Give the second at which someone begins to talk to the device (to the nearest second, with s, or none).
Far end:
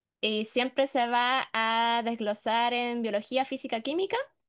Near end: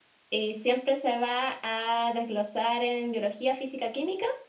none